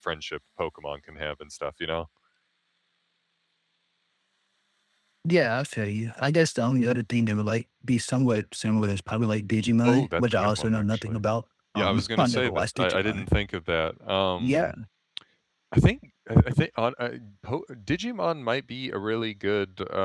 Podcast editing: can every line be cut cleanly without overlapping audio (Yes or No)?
No